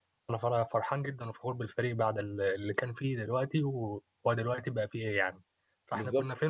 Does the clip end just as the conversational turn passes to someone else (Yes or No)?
Yes